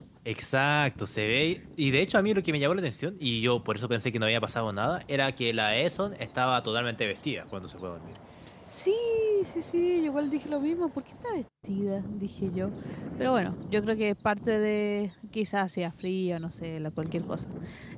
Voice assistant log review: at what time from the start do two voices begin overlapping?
none

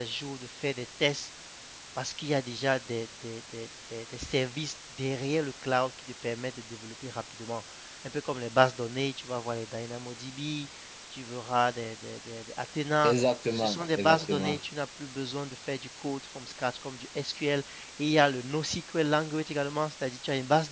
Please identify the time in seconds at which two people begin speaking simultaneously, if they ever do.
13.0 s

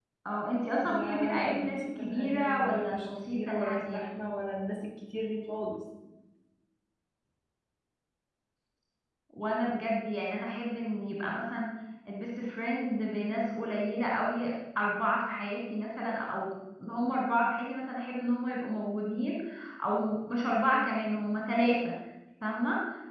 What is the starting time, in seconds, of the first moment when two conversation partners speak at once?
0.8 s

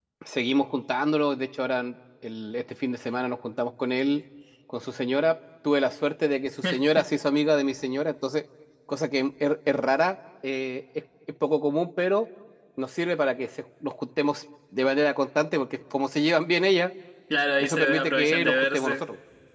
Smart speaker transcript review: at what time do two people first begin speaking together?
17.6 s

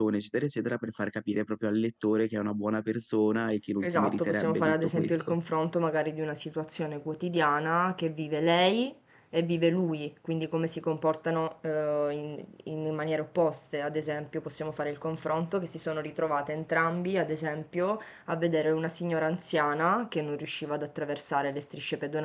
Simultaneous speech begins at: 3.8 s

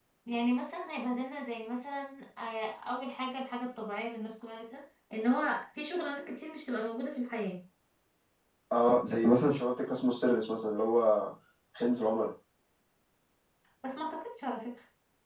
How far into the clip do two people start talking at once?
none

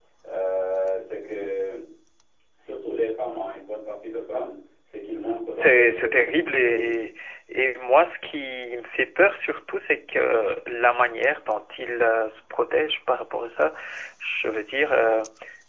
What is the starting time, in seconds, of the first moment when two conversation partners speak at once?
5.3 s

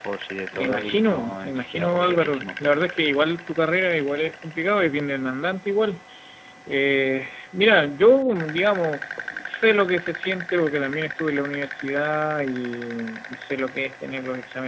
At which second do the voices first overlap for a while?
0.5 s

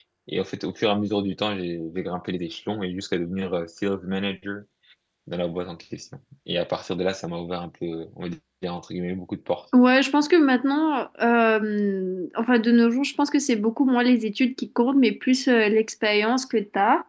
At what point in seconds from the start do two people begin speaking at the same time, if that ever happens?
none

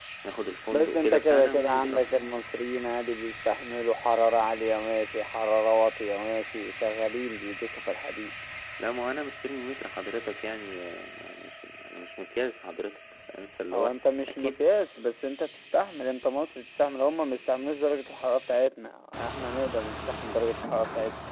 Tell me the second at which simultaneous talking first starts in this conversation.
0.7 s

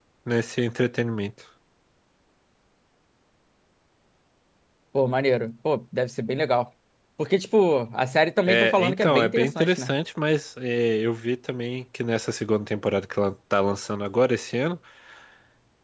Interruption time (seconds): 8.5 s

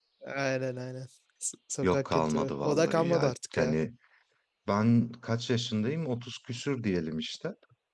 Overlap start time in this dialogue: 1.8 s

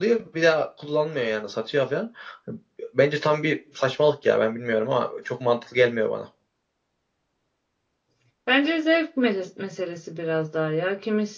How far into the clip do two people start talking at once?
none

